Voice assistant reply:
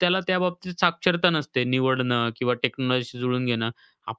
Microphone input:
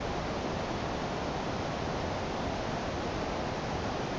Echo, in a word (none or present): none